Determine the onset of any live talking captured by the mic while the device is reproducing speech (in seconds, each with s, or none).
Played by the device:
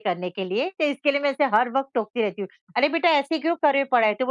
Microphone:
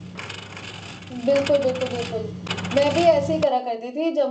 1.1 s